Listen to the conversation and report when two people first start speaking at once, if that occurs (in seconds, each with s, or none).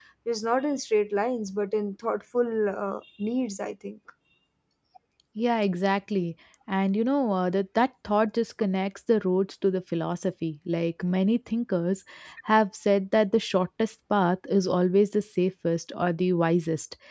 none